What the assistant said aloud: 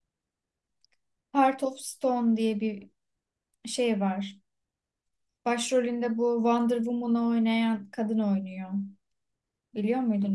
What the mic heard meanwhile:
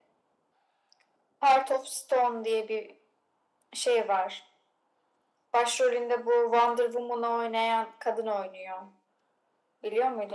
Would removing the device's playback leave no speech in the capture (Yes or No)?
Yes